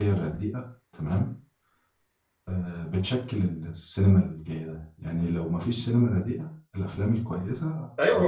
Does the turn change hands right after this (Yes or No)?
Yes